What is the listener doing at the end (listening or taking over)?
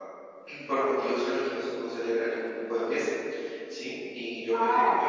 listening